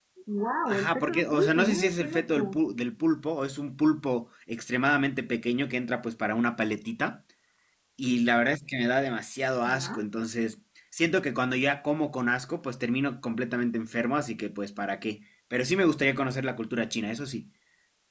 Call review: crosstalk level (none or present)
present